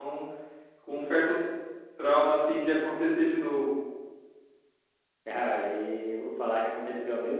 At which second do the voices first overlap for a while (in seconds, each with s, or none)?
none